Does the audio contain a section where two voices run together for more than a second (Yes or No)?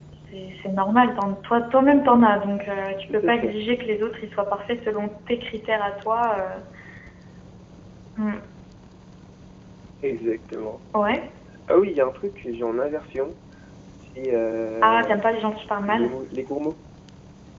No